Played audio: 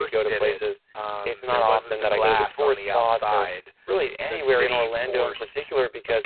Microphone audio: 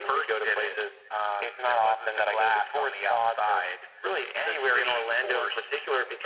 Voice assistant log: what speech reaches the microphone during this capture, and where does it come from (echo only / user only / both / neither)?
echo only